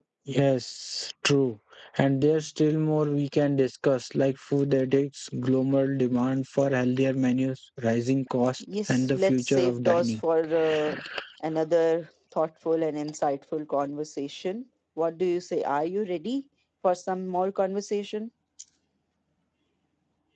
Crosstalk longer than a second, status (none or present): present